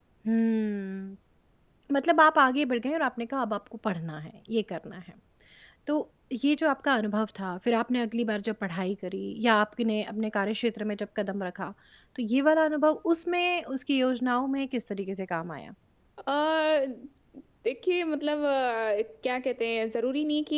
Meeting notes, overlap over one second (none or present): none